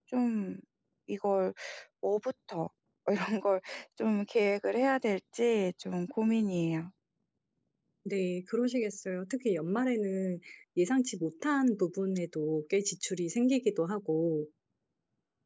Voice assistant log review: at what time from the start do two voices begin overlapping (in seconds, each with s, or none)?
none